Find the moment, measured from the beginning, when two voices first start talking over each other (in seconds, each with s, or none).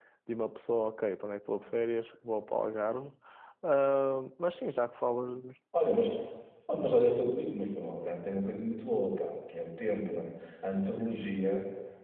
none